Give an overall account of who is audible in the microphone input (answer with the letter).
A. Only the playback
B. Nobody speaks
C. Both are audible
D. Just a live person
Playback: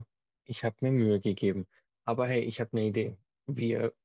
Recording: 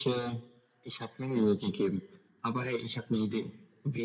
A